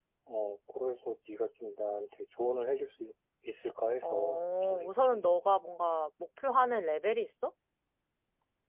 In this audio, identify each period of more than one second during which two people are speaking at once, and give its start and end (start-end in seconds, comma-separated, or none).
4.0-5.2